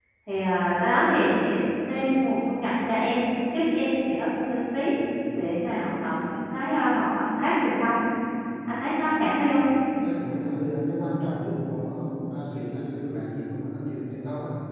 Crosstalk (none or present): none